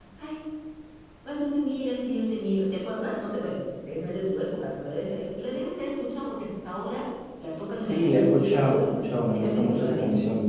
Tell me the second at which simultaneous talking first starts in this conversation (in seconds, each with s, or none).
7.8 s